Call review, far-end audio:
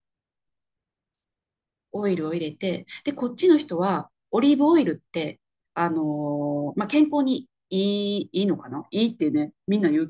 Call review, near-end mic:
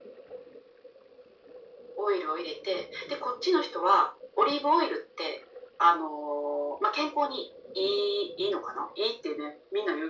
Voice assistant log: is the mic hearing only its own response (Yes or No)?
Yes